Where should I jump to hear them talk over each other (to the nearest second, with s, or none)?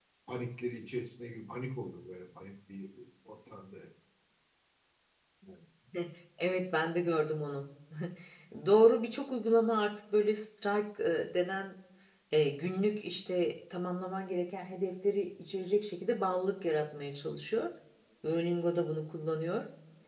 none